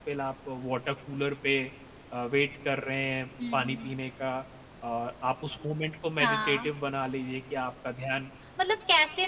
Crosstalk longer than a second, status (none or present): none